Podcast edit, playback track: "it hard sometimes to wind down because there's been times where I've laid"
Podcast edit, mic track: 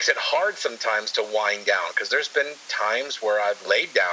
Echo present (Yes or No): Yes